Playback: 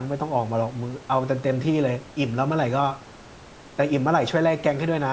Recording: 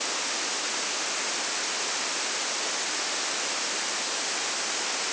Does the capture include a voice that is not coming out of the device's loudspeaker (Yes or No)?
No